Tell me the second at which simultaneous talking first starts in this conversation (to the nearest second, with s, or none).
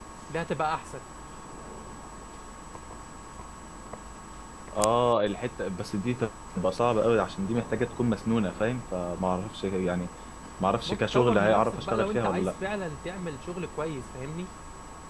11 s